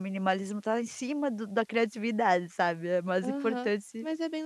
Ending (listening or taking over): taking over